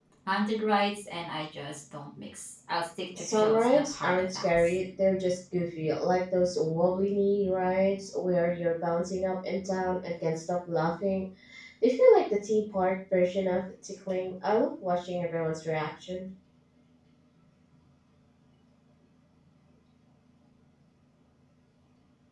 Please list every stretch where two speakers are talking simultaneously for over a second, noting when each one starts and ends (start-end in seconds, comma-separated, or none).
3.2-4.8